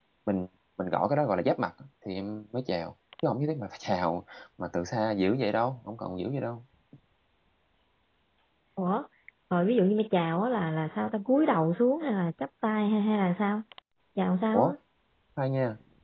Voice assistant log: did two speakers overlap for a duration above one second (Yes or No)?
No